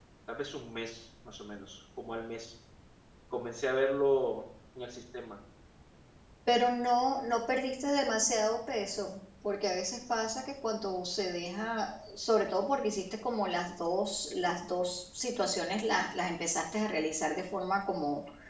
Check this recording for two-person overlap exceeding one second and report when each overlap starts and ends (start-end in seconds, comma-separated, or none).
none